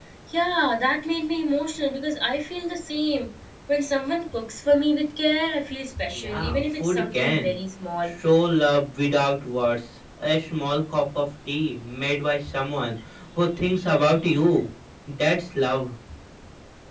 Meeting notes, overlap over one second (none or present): present